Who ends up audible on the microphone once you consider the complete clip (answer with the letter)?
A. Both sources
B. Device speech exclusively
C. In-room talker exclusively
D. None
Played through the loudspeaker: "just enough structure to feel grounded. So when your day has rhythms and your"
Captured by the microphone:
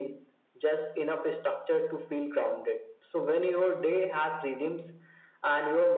B